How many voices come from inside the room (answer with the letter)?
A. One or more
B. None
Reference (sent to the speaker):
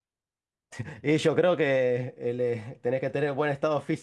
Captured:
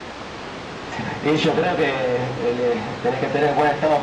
B